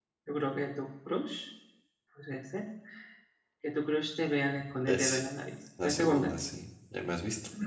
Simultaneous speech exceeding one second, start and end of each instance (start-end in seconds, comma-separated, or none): none